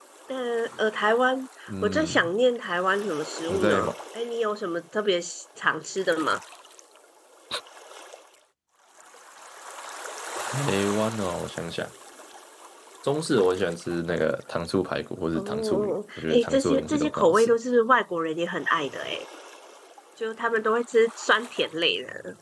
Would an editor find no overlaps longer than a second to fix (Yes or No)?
No